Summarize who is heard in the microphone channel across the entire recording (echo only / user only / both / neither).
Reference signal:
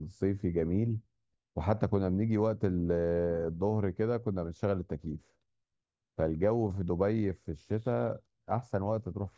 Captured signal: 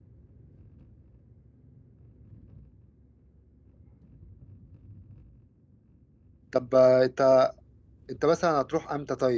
user only